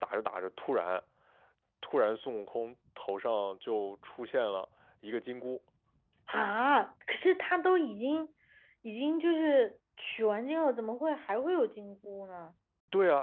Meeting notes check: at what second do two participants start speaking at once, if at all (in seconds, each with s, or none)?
none